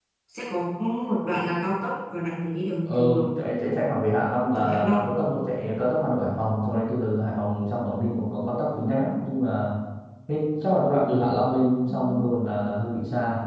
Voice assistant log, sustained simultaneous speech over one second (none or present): none